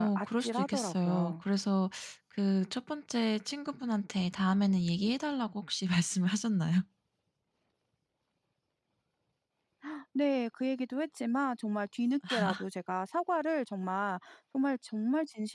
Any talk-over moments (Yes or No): Yes